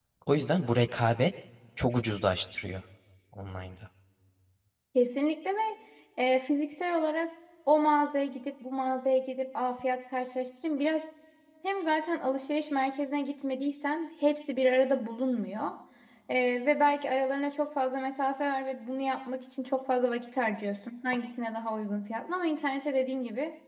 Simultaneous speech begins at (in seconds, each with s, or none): none